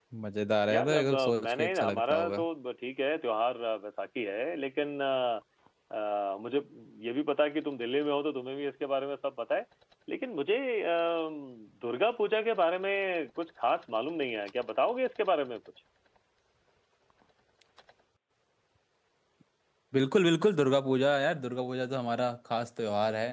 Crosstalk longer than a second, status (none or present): present